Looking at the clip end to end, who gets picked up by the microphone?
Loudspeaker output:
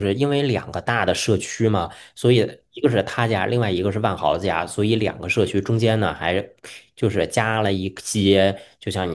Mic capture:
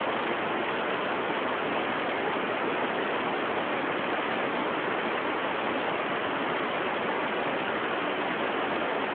neither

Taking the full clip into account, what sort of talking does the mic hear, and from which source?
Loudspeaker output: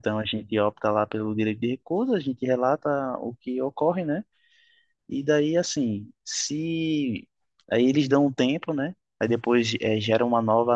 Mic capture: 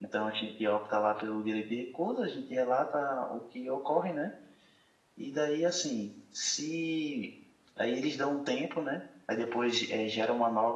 echo only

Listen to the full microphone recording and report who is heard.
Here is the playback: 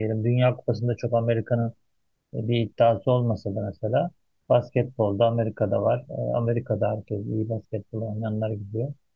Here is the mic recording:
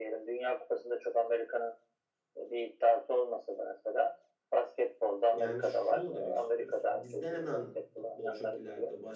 both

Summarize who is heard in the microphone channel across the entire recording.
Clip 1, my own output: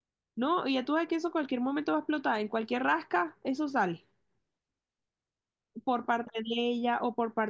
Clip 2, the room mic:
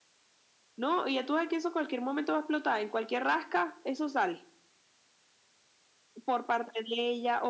echo only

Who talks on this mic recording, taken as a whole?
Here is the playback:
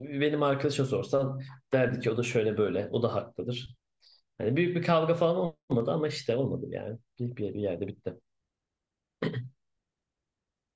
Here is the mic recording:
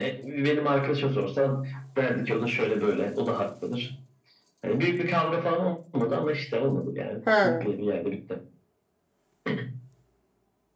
both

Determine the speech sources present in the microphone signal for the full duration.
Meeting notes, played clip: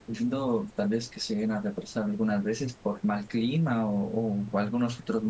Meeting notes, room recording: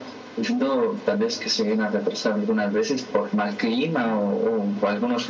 echo only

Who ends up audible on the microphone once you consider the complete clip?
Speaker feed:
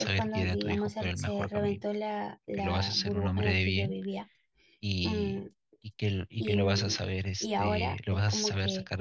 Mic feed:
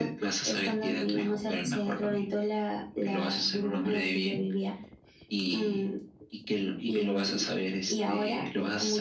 echo only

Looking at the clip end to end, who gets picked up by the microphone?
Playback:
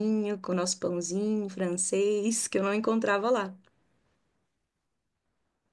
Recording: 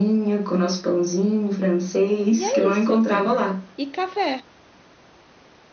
both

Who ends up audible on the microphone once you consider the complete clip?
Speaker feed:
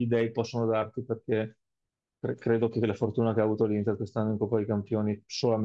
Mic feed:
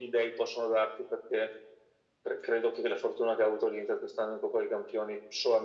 echo only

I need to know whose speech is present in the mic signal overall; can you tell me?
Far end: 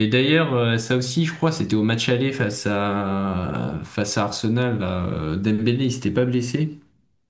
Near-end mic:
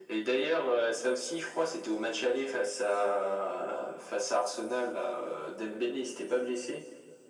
echo only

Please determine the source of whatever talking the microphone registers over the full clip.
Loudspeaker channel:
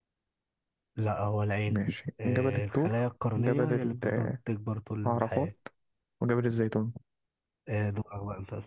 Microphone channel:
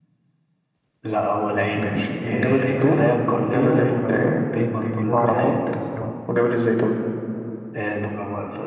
both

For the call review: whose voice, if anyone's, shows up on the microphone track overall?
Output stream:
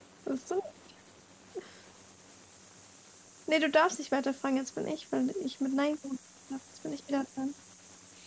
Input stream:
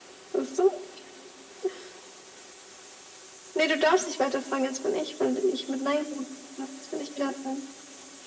echo only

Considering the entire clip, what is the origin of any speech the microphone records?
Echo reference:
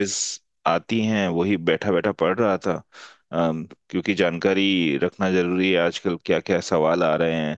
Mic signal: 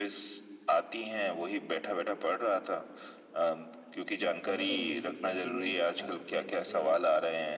both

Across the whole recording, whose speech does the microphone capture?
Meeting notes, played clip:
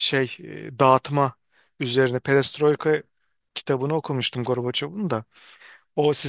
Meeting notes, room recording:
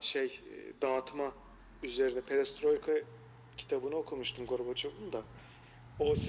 echo only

